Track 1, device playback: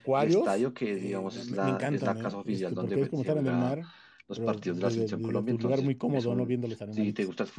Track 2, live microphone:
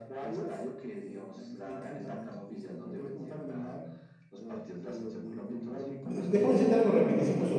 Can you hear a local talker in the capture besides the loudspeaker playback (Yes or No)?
Yes